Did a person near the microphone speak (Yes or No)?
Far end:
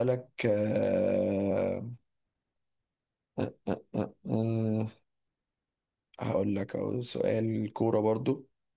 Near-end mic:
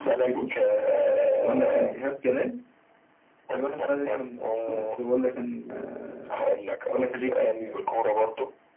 Yes